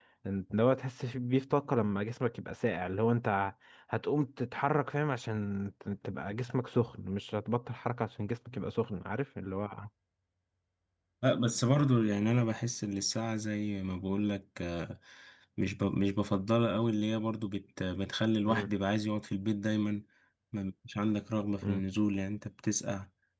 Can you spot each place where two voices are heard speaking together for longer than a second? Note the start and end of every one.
none

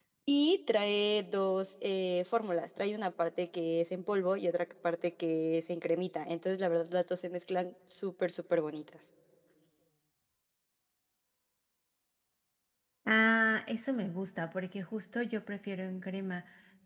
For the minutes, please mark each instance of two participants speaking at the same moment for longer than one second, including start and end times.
none

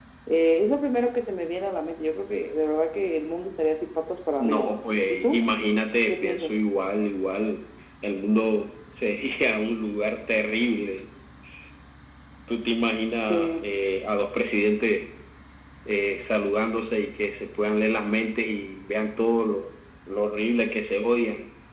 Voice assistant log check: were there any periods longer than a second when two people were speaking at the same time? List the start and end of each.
none

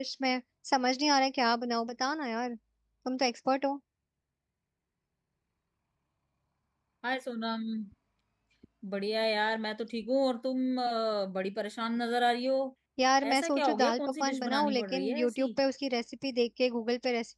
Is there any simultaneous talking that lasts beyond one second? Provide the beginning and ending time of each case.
13.2-15.5

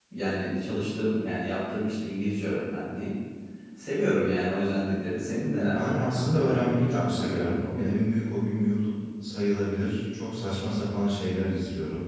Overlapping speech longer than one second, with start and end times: 5.5-7.9

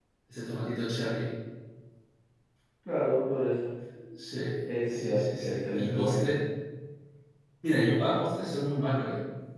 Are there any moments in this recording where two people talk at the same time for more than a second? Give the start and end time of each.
4.9-6.3

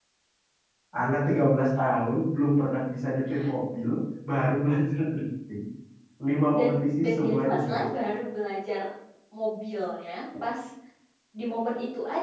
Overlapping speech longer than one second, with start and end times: 6.6-7.8

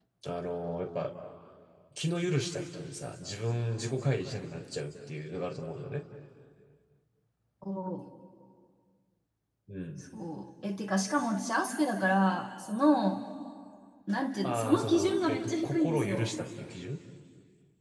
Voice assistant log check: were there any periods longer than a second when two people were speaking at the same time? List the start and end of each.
14.4-16.3

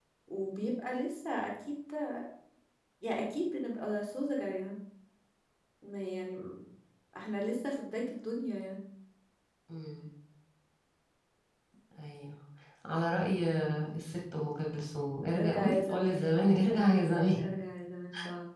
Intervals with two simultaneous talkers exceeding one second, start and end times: 15.4-17.4

